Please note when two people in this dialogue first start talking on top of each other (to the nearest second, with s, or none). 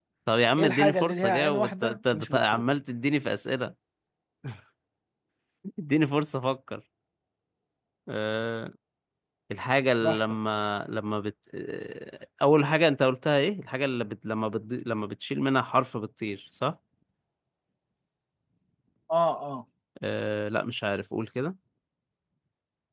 1 s